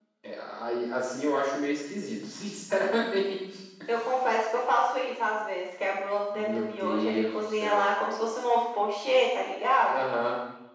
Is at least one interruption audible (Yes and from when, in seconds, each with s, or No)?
Yes, from 6.3 s